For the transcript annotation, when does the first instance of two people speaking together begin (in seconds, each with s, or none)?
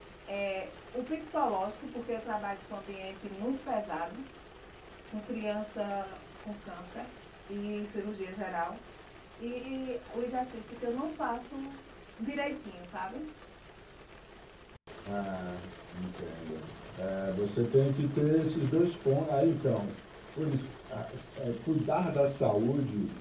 none